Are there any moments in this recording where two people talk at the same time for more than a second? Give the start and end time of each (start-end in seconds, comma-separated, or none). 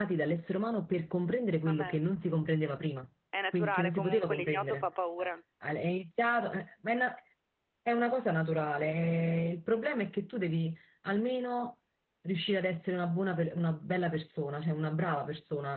3.5-4.9